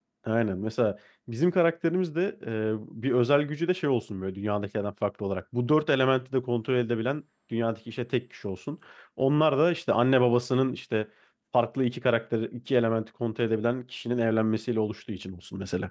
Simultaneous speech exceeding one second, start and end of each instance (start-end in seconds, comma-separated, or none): none